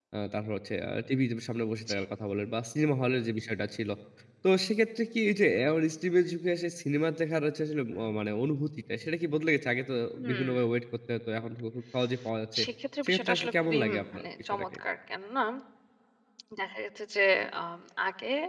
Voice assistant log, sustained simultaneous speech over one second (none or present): present